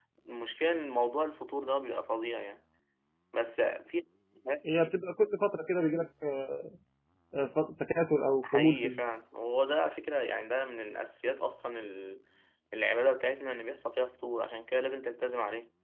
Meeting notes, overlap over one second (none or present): none